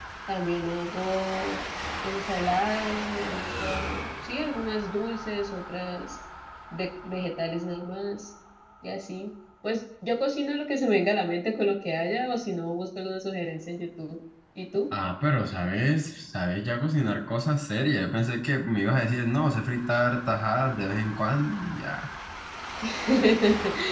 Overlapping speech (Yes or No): No